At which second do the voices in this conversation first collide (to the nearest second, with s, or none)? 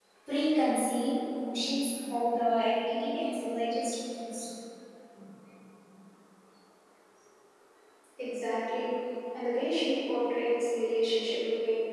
none